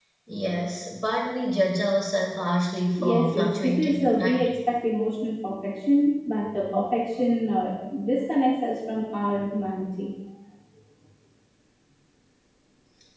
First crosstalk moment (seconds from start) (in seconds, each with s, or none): 3.0 s